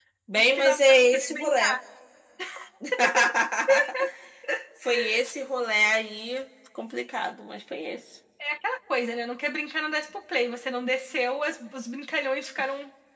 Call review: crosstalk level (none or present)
present